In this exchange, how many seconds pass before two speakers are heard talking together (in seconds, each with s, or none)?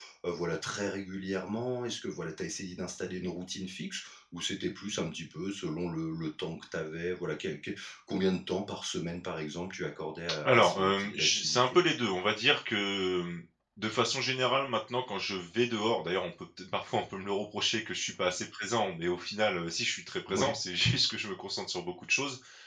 10.4 s